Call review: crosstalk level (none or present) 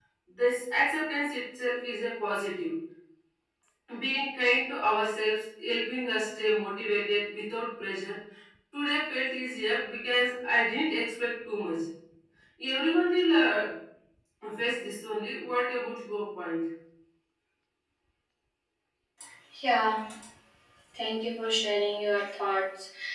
none